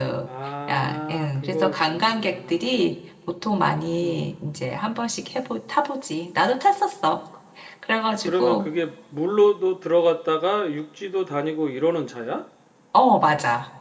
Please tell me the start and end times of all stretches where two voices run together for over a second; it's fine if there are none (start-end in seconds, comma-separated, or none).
0.7-2.6